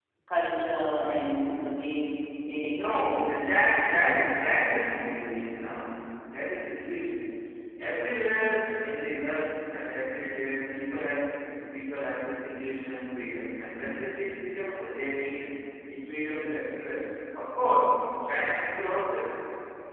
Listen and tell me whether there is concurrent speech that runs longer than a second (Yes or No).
Yes